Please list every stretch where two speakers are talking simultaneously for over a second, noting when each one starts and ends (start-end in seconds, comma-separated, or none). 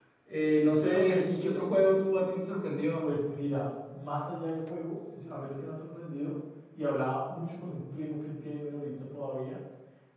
none